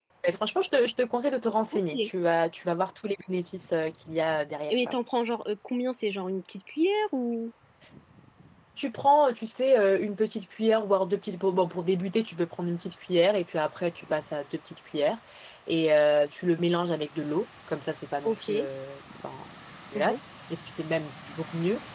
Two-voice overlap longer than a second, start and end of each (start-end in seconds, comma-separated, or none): none